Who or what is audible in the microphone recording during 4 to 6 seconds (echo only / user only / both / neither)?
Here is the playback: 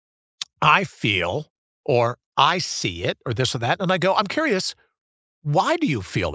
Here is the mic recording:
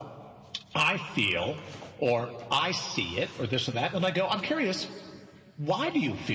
echo only